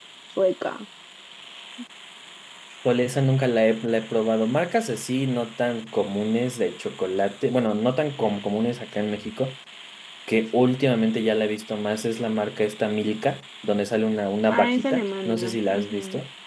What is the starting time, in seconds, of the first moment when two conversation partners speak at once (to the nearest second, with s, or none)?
15 s